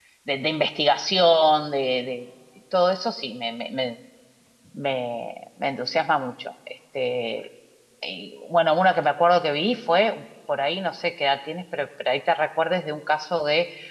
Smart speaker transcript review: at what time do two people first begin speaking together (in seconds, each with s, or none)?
none